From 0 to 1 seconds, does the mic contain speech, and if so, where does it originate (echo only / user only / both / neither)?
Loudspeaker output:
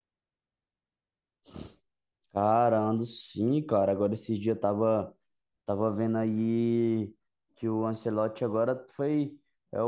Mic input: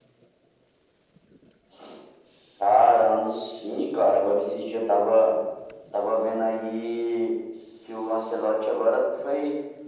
neither